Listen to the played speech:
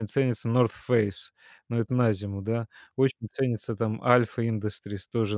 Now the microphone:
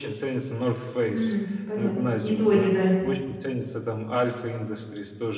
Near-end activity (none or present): present